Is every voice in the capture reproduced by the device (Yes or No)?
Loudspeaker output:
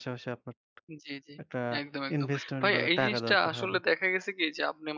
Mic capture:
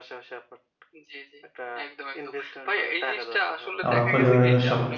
No